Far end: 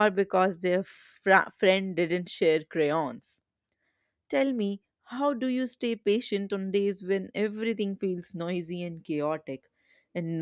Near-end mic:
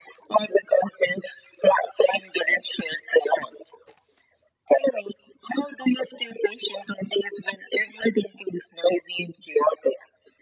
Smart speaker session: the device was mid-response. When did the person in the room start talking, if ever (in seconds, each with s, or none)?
none